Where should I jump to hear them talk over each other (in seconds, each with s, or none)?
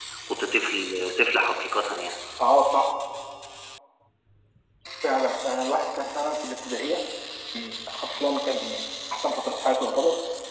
none